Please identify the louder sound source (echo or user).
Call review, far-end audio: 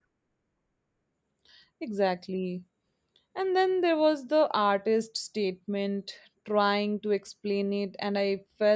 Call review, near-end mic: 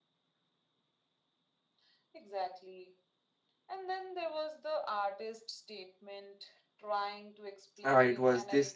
user